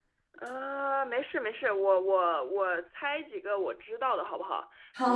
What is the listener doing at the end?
taking over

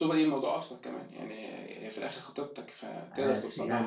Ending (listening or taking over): taking over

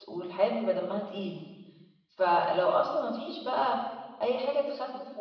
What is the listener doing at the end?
listening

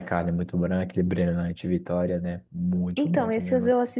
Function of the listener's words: taking over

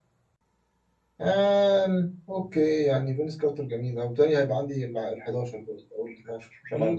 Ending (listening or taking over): taking over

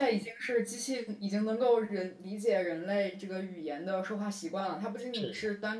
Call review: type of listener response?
listening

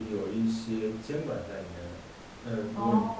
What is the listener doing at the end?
listening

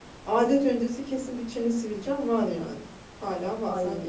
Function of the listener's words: listening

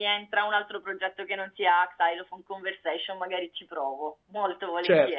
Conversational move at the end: taking over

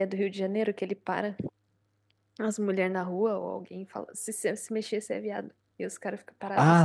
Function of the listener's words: taking over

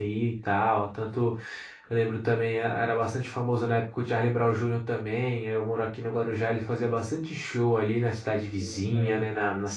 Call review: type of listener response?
listening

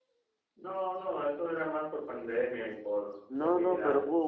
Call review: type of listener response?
taking over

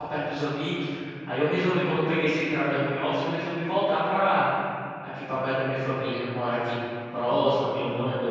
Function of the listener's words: listening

